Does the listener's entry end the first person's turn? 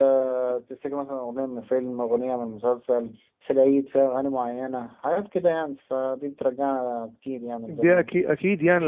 Yes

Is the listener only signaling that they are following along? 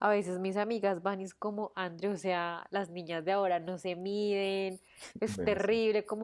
Yes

